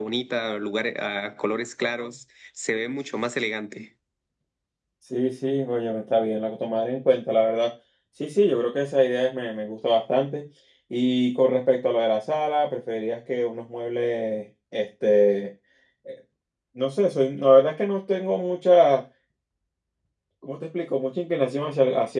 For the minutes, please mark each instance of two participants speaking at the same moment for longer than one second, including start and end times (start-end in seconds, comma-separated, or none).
none